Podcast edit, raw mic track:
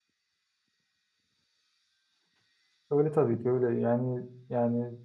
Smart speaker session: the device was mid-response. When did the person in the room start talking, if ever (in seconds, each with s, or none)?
2.9 s